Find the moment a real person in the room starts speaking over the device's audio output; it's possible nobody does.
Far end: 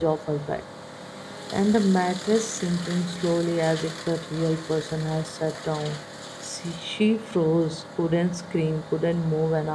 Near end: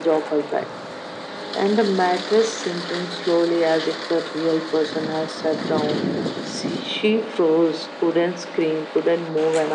none

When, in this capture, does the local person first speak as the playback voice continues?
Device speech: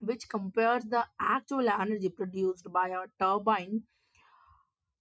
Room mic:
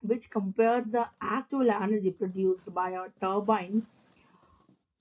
none

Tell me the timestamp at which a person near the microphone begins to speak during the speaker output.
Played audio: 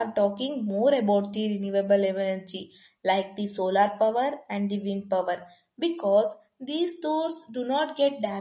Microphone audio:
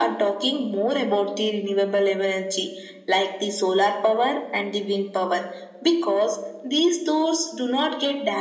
none

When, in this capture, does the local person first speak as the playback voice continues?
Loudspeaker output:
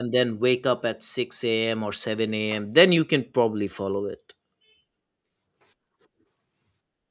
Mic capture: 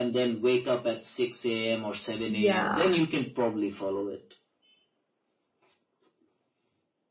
2.3 s

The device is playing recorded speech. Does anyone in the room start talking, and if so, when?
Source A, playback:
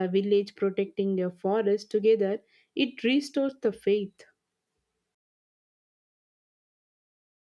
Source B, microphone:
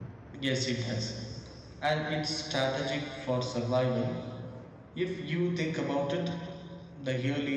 0.4 s

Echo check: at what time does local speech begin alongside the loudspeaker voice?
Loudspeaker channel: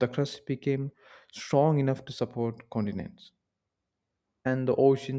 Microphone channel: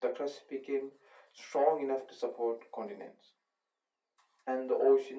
none

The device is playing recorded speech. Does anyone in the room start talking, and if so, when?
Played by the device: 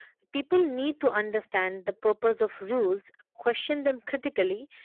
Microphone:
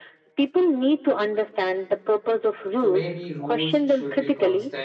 2.7 s

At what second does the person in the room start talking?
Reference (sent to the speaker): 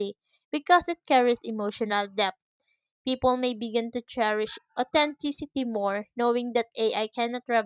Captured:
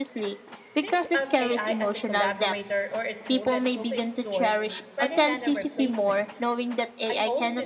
0.8 s

